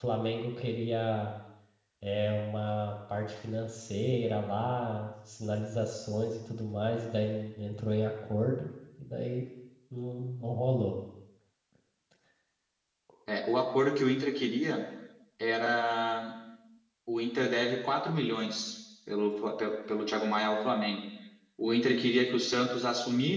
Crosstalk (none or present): none